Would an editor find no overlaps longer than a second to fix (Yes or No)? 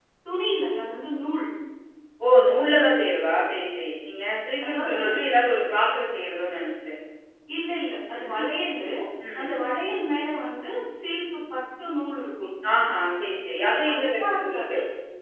No